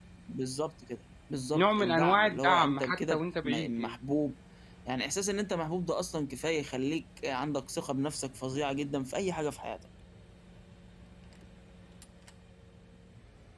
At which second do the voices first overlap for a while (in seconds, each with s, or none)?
1.5 s